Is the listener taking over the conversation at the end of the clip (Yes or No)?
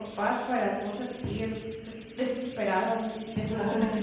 No